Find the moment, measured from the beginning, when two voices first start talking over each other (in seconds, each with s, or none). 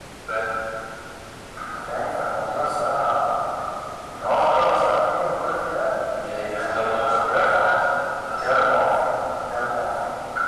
6.6 s